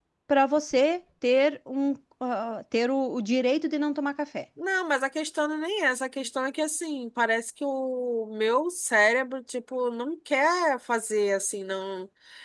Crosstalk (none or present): none